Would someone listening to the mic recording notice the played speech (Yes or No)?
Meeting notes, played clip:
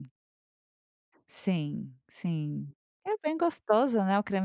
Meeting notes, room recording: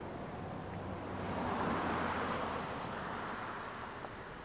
No